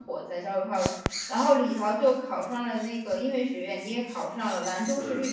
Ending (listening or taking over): listening